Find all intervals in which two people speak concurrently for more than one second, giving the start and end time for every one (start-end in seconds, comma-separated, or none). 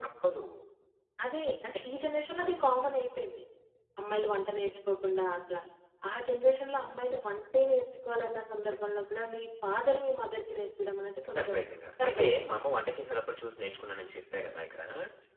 none